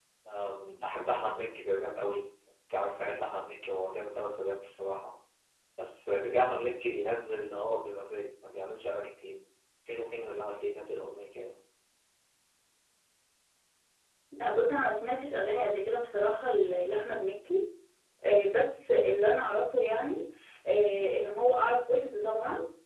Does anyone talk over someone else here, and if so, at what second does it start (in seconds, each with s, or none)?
none